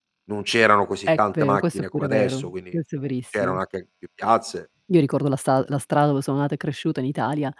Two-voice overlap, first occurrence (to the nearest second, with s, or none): 1 s